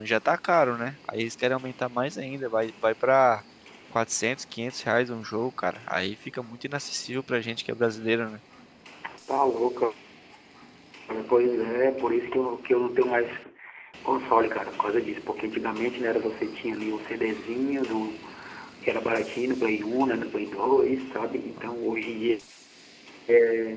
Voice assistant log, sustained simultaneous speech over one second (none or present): none